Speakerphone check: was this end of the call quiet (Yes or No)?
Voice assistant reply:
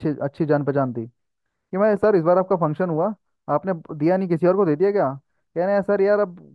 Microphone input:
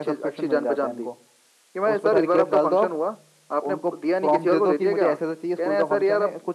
No